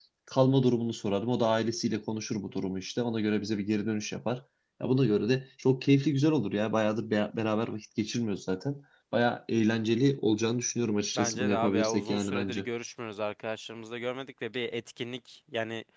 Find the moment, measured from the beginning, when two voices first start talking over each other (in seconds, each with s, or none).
11.2 s